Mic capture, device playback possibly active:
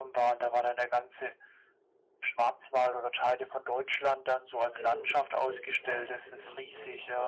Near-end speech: present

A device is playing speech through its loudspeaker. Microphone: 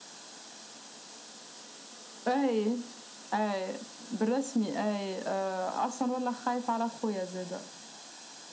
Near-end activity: none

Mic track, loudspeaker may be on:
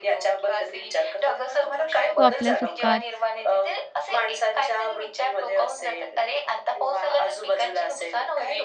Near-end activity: present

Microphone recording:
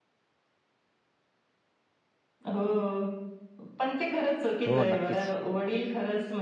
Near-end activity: present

